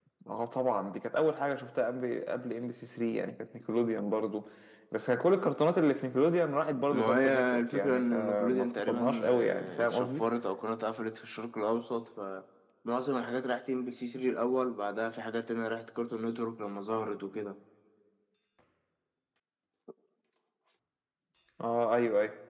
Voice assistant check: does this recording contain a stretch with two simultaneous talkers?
Yes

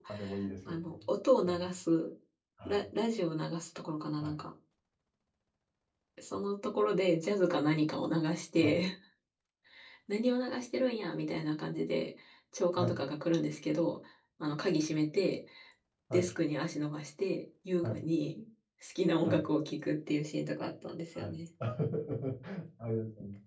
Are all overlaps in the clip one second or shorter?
Yes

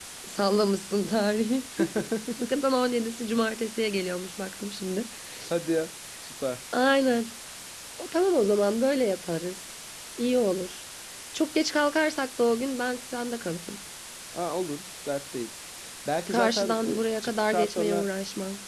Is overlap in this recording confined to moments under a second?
No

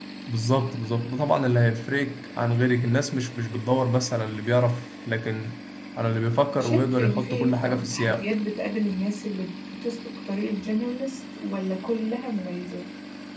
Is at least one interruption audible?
Yes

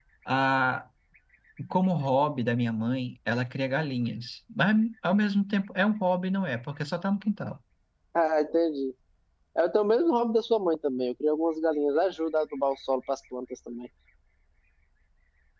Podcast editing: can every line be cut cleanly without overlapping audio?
Yes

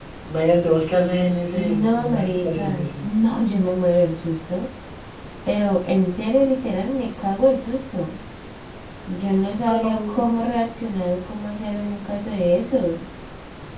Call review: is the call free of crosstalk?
No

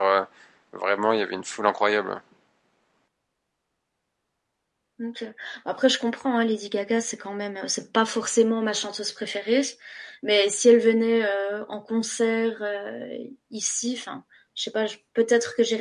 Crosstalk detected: No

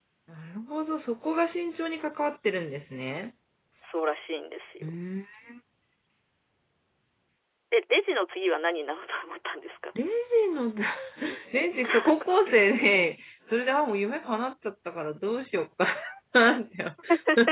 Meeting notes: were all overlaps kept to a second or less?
Yes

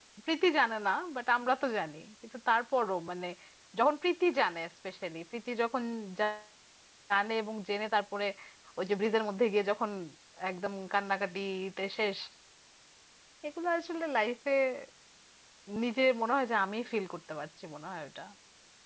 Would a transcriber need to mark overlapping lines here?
No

